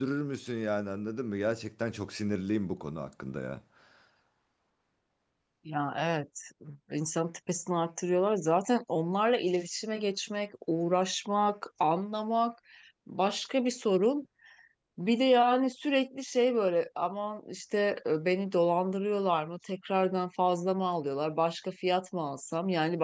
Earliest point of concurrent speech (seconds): none

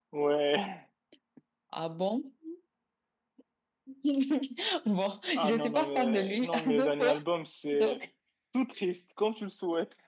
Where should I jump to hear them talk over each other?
5.3 s

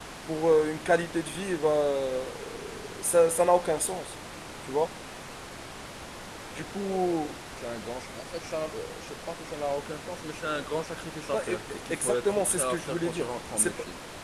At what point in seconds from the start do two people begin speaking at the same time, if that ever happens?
11.3 s

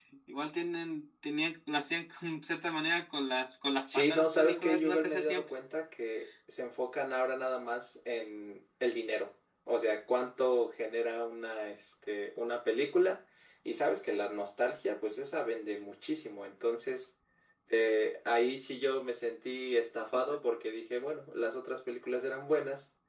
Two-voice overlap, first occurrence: 3.9 s

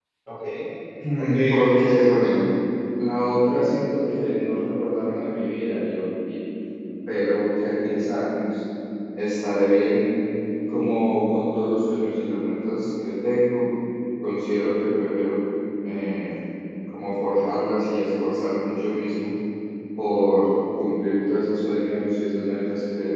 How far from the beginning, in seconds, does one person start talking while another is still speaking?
1.2 s

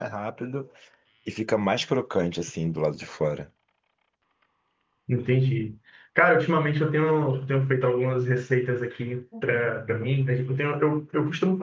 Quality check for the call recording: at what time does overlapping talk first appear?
none

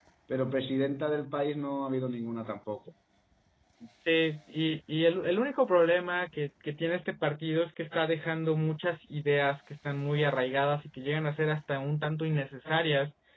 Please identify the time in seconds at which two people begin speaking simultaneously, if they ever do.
none

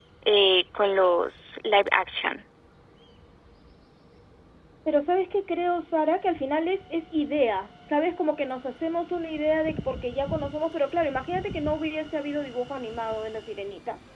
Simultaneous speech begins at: none

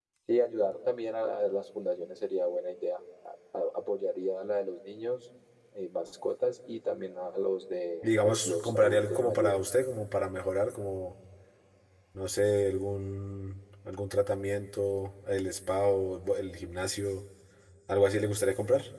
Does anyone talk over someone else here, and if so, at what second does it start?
8.0 s

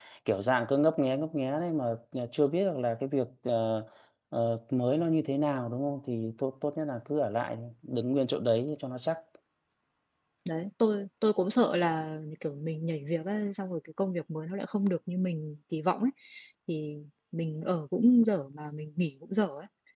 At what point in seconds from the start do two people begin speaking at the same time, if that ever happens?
none

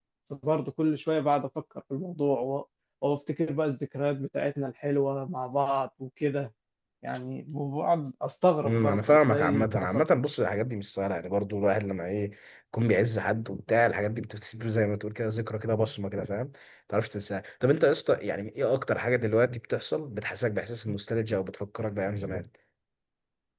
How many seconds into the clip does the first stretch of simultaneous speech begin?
8.7 s

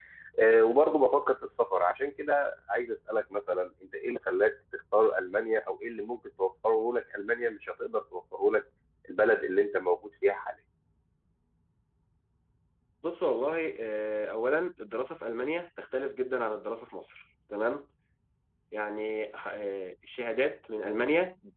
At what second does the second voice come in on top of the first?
none

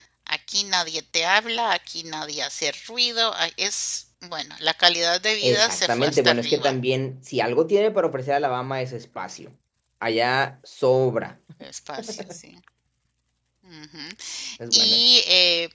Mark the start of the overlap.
5.4 s

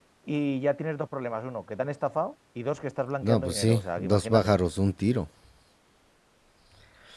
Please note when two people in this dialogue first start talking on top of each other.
3.2 s

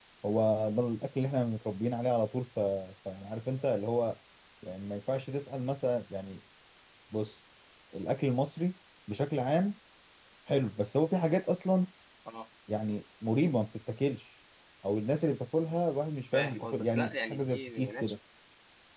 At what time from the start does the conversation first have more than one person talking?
16.3 s

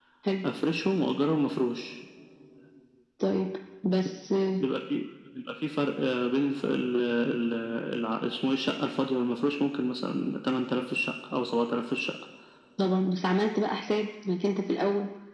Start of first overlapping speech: none

